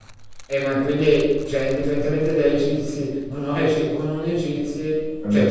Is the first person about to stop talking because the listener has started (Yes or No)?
No